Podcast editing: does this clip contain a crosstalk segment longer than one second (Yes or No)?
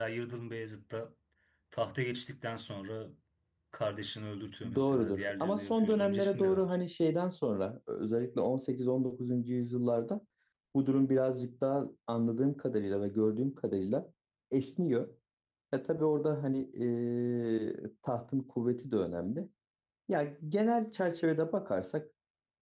Yes